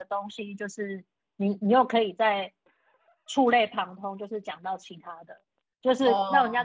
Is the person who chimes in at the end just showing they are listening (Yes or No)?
Yes